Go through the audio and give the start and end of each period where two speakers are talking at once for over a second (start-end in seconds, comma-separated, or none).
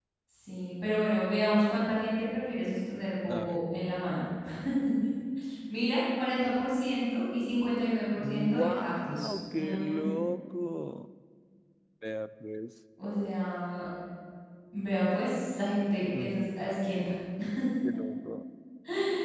8.2-10.0